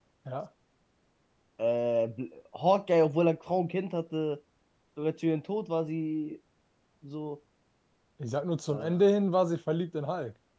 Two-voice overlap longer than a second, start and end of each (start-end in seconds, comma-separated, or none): none